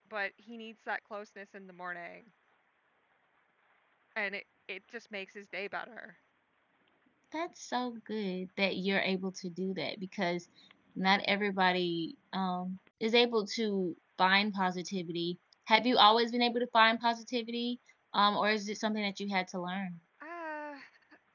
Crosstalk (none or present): none